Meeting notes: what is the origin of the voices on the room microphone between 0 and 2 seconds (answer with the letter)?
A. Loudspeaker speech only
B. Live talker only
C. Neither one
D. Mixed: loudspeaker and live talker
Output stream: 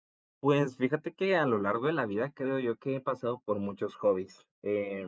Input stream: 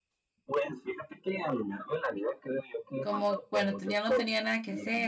A